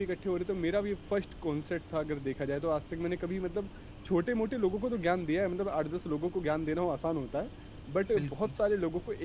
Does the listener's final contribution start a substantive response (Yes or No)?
No